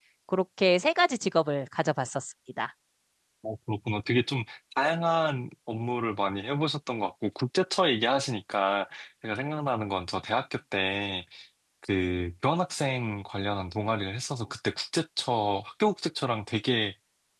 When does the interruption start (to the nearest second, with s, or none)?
none